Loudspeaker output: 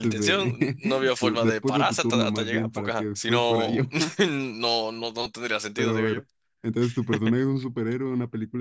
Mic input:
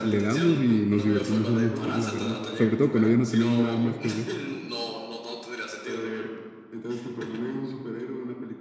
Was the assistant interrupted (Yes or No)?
Yes